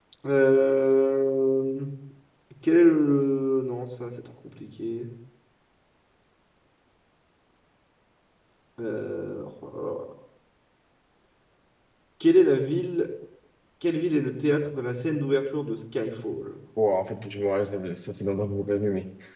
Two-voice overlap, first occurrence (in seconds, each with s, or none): none